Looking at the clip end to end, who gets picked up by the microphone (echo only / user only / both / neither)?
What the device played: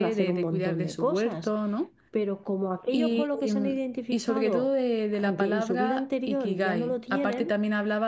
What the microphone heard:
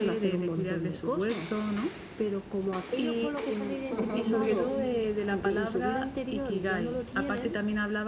both